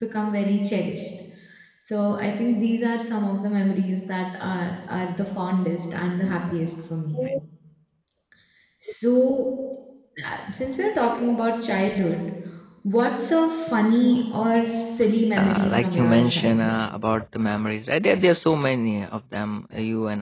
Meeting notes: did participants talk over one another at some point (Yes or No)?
Yes